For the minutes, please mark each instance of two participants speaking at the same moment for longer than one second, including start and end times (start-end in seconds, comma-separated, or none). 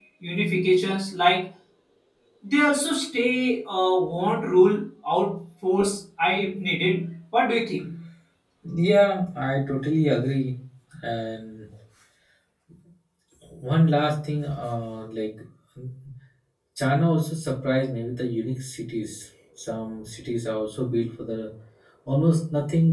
none